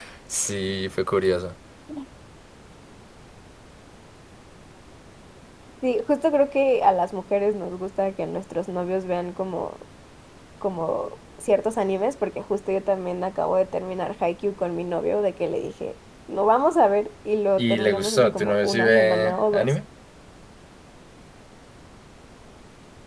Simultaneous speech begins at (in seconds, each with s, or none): 17.6 s